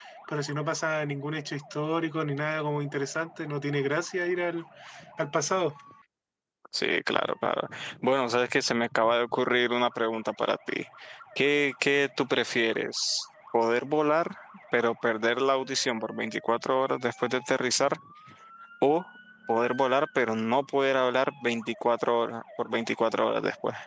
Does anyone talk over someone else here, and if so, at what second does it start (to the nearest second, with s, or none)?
none